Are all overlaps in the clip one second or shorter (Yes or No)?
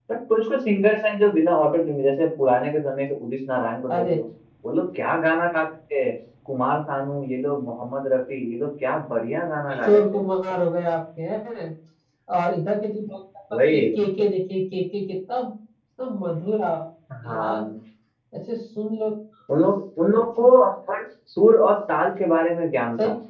Yes